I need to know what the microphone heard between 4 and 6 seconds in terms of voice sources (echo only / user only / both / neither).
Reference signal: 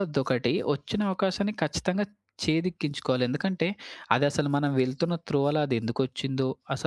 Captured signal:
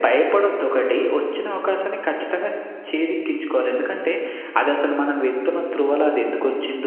echo only